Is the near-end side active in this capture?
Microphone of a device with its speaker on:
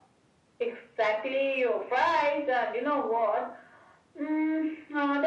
No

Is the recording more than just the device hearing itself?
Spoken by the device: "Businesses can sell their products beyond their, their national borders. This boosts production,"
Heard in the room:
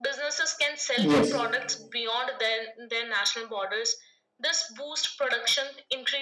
Yes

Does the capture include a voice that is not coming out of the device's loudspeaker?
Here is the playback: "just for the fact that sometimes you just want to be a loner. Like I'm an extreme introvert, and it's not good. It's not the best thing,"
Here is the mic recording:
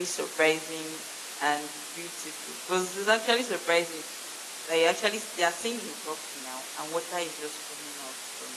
Yes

